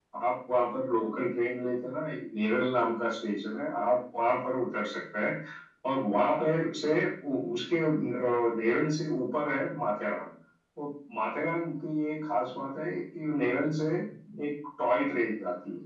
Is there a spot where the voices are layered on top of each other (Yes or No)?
No